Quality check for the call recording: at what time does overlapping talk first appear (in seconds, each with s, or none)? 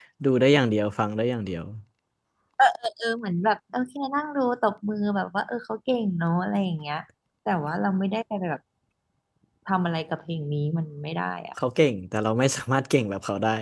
none